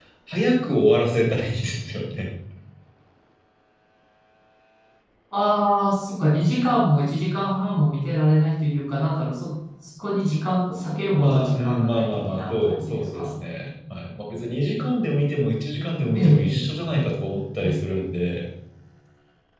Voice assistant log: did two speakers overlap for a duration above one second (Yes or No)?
Yes